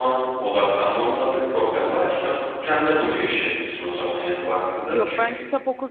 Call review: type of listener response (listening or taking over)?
taking over